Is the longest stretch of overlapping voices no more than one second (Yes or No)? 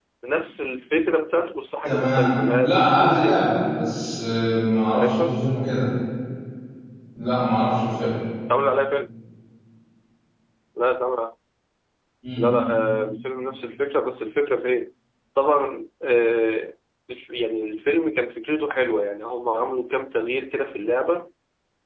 No